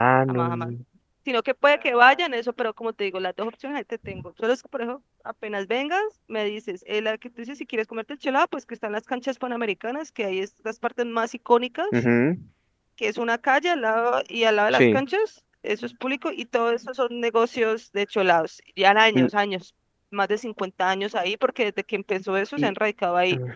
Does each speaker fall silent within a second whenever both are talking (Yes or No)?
Yes